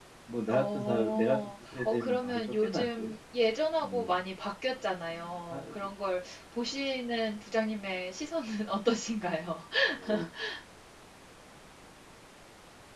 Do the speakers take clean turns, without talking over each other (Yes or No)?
No